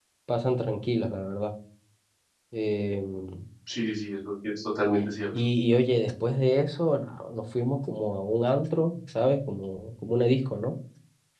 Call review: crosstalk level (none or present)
none